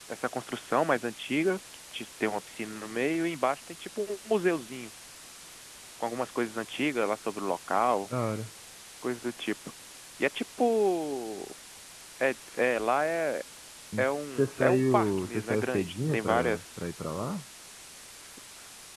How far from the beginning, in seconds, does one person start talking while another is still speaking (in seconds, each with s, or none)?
14.0 s